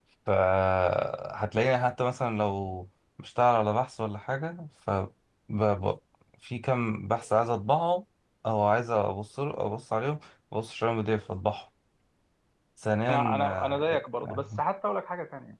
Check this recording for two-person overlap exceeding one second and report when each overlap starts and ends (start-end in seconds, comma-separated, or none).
13.1-14.6